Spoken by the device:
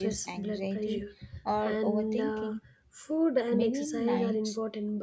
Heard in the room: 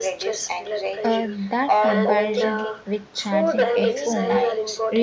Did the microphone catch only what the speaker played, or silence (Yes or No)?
No